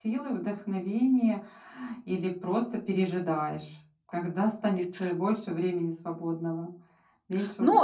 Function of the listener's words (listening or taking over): taking over